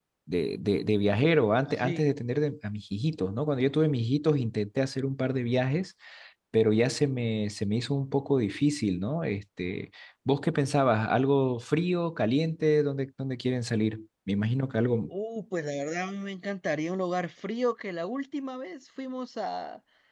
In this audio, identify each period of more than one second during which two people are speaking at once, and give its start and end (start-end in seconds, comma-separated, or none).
none